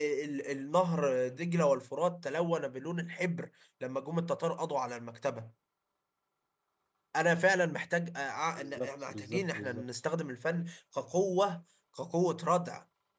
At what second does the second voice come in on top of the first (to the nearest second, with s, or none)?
9 s